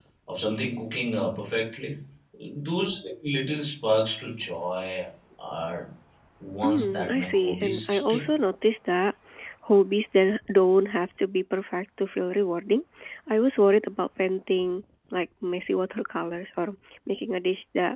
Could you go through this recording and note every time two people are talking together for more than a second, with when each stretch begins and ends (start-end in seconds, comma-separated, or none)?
6.6-8.2